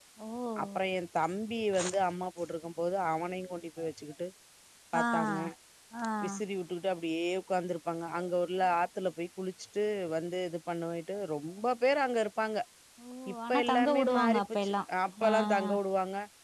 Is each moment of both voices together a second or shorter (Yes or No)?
No